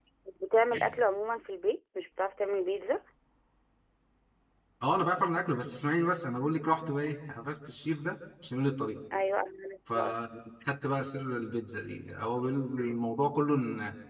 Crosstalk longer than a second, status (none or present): none